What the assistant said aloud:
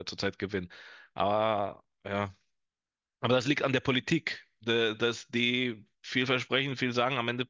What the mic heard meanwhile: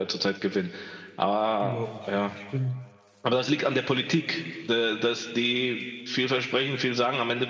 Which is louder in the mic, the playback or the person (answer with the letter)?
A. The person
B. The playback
B